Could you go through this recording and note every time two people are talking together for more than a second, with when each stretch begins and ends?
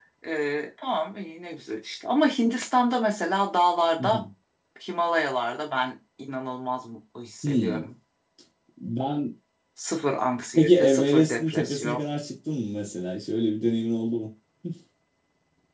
10.5-12.0

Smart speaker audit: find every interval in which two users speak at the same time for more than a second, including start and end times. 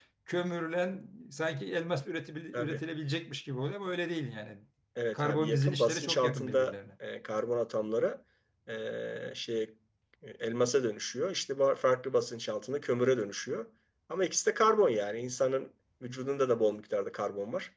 5.1-6.7

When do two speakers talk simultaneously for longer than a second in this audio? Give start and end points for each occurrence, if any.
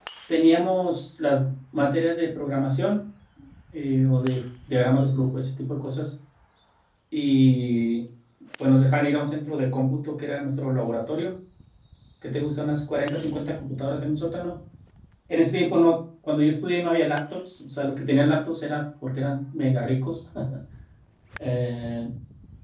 none

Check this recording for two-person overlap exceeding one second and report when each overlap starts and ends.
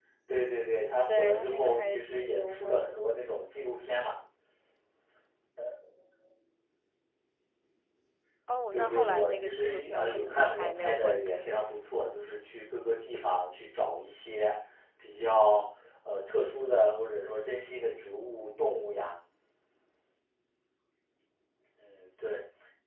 1.2-3.1, 8.7-11.5

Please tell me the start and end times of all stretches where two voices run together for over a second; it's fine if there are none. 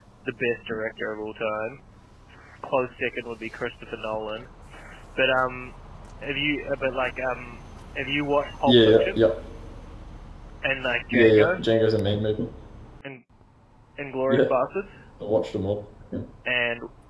none

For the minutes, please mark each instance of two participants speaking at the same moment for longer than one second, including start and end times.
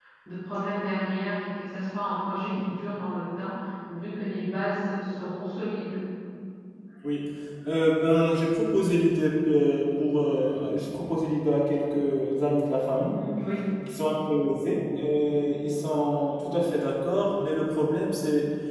none

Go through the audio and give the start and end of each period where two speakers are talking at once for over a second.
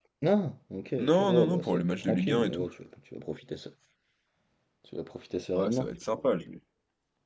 1.0-2.7

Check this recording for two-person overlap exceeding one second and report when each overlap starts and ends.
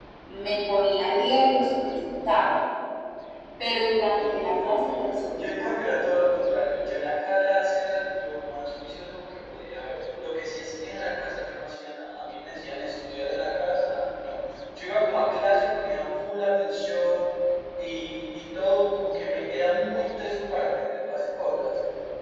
4.2-5.7

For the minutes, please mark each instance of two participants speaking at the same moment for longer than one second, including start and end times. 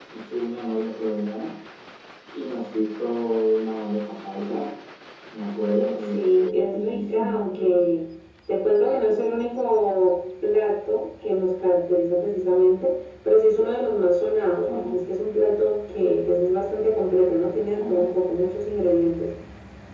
6.1-7.8

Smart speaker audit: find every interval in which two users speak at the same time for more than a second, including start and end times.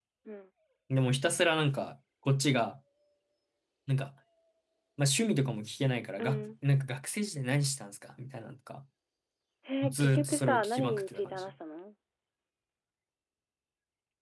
9.9-11.4

